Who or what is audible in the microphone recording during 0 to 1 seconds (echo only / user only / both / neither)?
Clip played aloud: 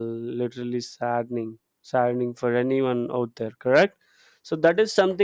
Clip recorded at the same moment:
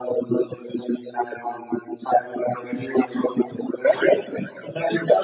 echo only